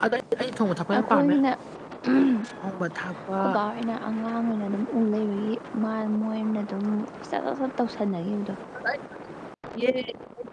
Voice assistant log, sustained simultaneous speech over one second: none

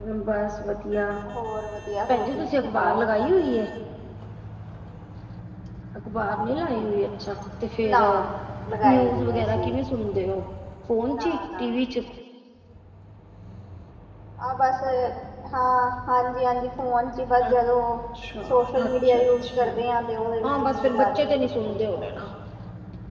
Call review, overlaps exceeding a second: present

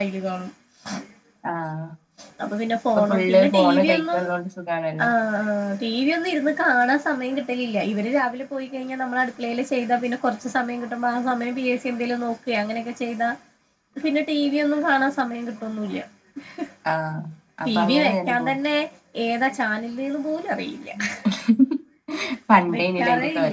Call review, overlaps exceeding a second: present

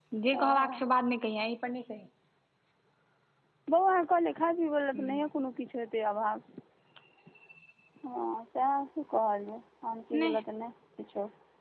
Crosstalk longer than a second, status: none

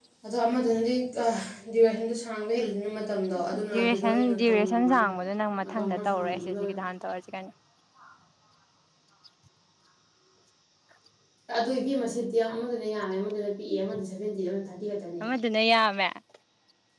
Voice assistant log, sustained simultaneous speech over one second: present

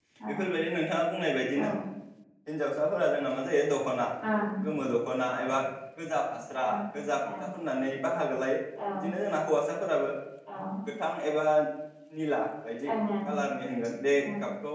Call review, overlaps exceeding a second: none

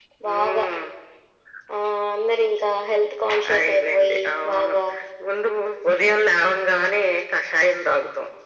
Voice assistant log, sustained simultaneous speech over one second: present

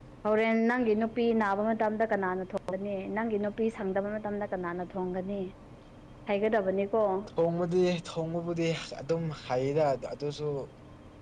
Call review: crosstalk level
none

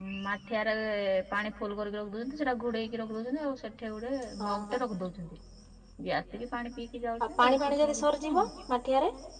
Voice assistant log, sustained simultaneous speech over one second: present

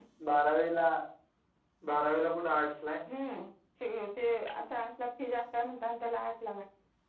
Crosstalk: none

